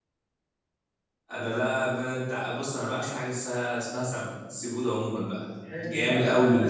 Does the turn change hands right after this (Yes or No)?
Yes